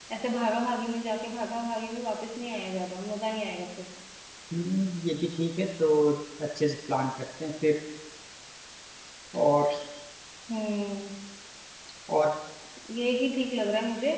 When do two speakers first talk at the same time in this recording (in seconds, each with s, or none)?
none